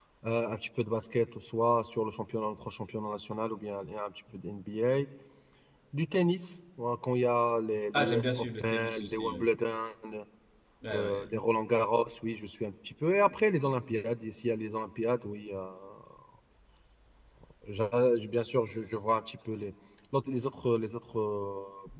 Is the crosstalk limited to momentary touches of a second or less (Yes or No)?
No